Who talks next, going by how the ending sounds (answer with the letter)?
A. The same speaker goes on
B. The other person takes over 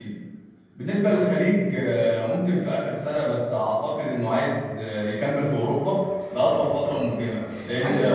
A